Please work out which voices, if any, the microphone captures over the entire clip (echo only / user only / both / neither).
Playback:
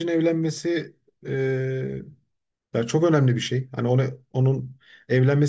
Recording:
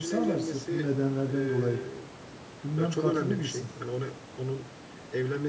both